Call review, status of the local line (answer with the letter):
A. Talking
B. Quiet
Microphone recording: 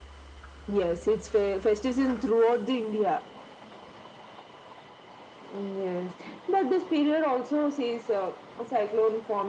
B